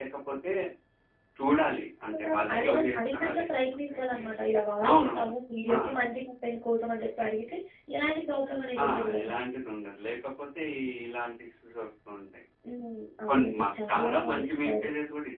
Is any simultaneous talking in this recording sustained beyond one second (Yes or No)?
Yes